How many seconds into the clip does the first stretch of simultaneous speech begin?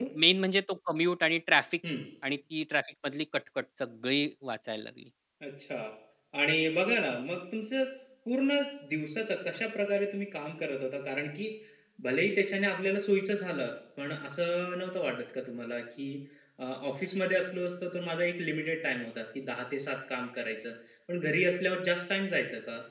none

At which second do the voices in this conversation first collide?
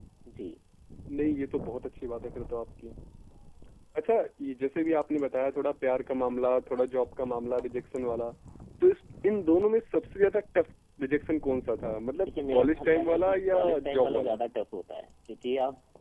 12.3 s

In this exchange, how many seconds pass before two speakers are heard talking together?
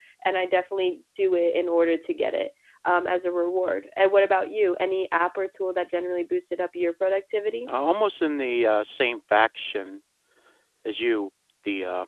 none

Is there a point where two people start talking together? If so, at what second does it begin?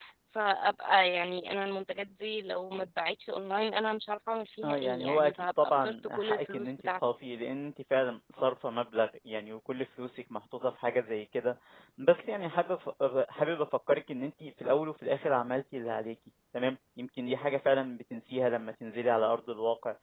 4.6 s

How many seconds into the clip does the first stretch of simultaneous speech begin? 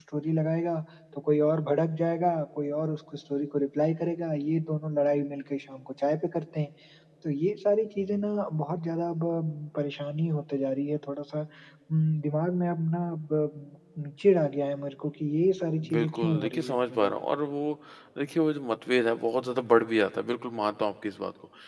15.8 s

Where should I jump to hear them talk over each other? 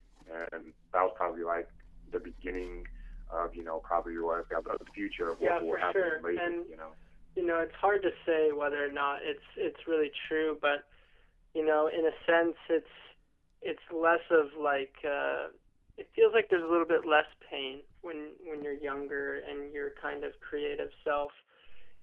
5.4 s

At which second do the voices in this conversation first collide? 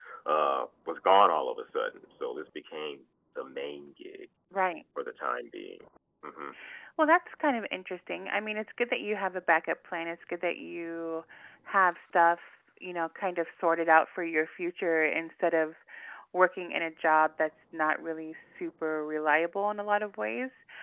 none

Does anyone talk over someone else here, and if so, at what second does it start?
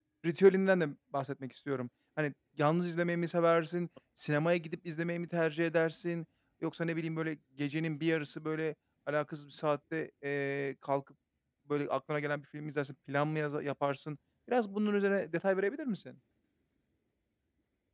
none

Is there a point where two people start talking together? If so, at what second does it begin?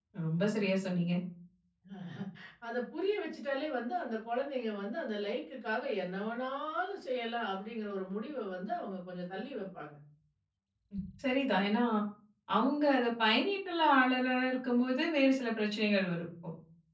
none

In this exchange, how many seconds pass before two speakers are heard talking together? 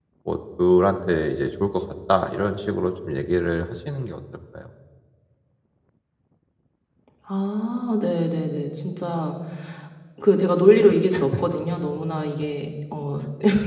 none

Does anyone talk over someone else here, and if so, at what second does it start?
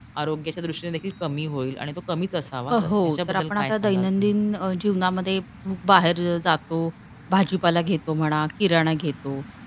2.7 s

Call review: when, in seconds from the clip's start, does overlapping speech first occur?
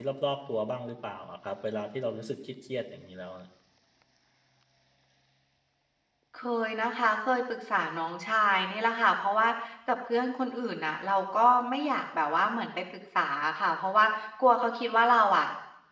none

